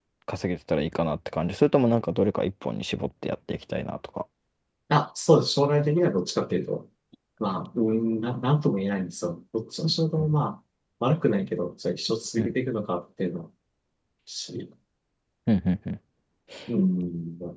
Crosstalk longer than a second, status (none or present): none